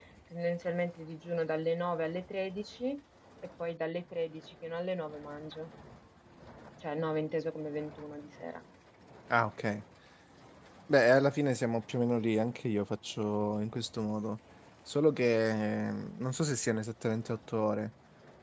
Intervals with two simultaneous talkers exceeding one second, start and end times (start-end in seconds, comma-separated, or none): none